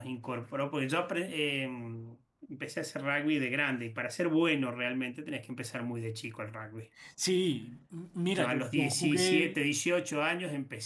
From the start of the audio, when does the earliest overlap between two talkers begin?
8.3 s

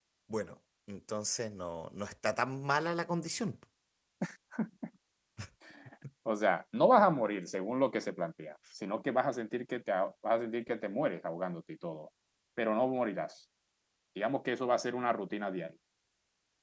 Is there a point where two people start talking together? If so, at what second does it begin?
none

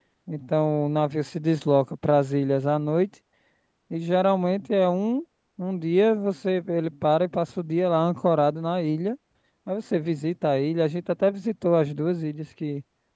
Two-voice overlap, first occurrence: none

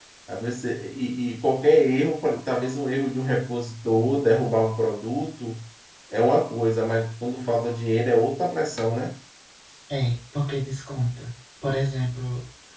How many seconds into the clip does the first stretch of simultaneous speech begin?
none

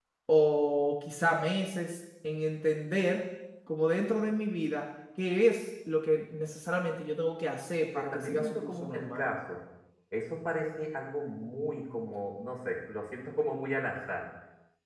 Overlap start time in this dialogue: 8.0 s

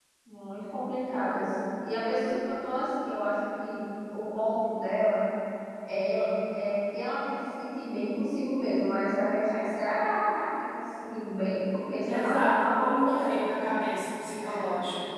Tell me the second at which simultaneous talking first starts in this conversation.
12.1 s

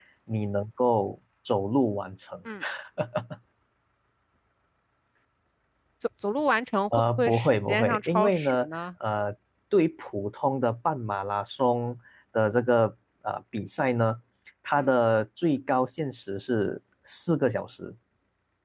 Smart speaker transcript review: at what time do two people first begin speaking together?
6.9 s

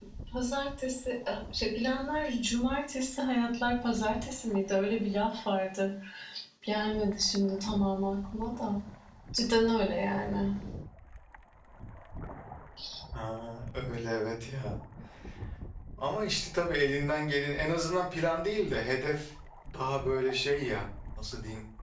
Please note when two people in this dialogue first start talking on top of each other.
none

